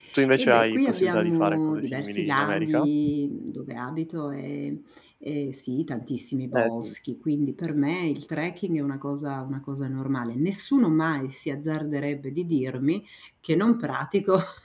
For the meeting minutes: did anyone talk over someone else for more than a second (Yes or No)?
Yes